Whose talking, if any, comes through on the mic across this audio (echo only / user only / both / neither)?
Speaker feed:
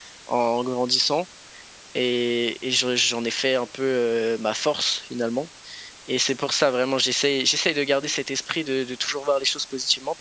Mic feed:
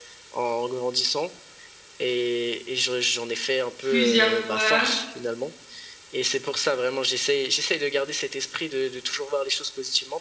both